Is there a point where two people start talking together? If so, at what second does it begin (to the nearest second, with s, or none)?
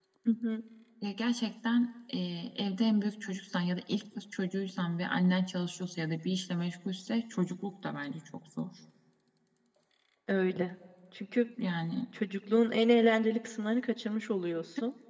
none